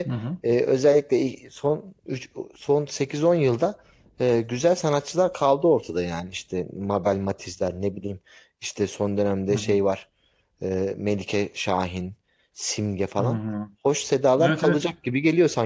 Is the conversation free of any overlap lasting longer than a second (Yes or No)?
Yes